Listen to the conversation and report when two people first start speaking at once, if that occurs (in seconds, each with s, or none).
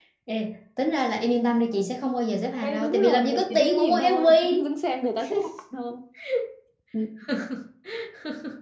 2.6 s